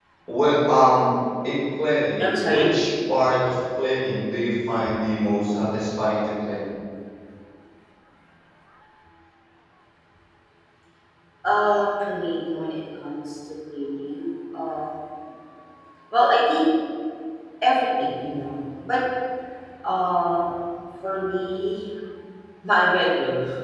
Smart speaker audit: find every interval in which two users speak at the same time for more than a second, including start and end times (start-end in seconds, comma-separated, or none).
none